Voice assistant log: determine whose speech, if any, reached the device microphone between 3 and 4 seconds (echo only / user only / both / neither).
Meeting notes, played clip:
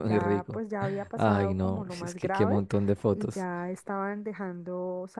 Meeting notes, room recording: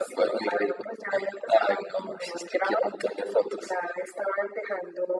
echo only